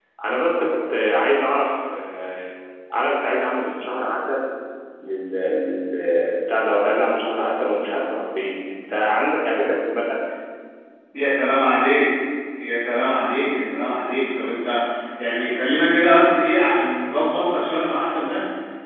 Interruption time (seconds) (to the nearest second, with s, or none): none